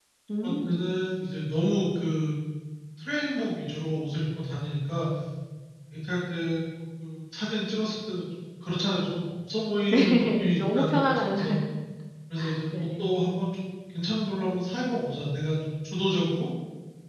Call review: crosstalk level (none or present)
present